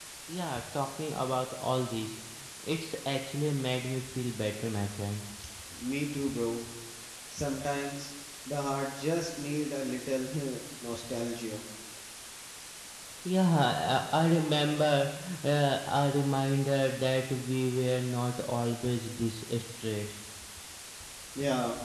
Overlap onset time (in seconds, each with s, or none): none